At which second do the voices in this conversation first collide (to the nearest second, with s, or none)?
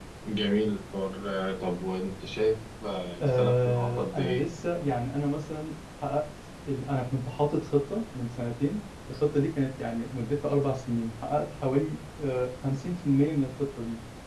3 s